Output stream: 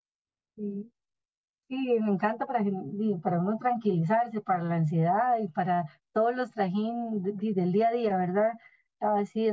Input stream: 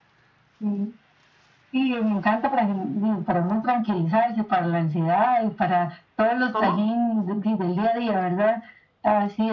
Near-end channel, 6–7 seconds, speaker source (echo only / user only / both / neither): both